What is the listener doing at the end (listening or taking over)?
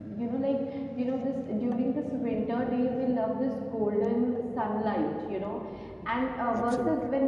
listening